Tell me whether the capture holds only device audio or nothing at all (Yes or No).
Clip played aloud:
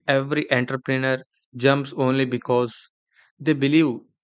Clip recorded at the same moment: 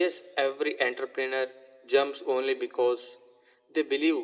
Yes